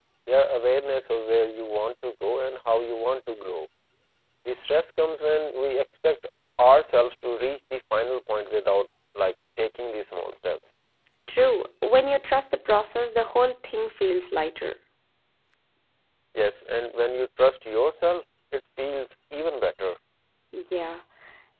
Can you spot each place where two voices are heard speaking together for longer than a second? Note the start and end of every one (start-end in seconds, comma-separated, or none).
none